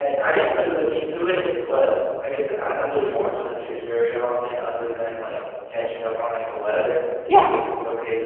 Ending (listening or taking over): listening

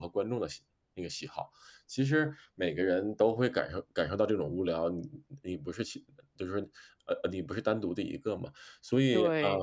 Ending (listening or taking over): taking over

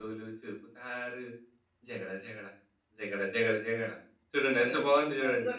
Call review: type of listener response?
taking over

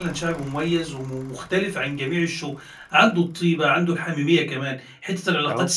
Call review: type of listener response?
listening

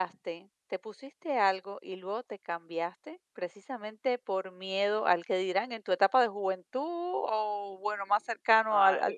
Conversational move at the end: taking over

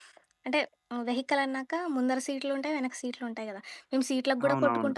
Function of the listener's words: listening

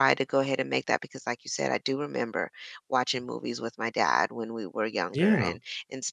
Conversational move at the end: listening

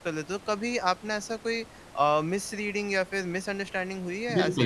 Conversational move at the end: taking over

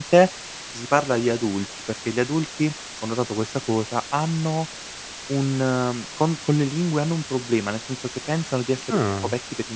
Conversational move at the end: listening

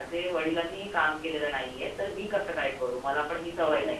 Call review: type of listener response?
listening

